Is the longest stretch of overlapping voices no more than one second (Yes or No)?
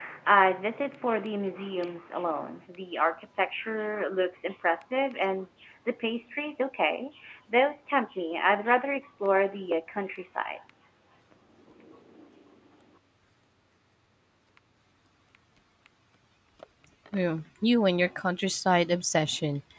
Yes